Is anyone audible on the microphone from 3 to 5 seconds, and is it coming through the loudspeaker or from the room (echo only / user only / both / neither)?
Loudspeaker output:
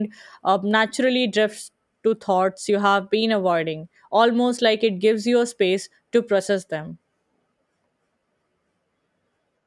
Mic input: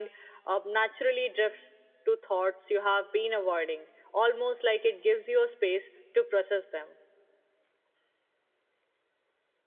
echo only